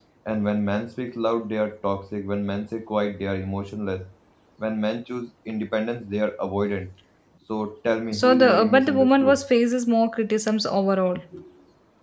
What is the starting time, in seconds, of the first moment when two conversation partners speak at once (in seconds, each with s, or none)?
8.1 s